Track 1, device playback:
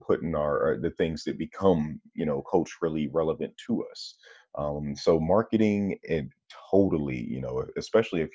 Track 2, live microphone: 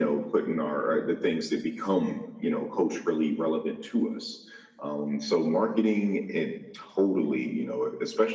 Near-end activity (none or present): none